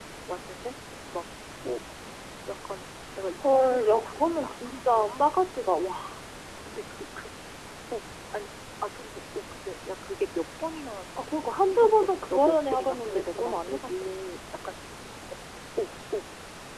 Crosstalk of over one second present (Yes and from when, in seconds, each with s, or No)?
Yes, from 3.4 s